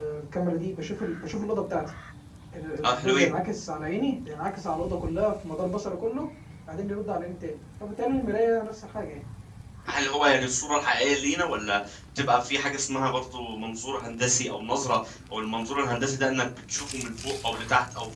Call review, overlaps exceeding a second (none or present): none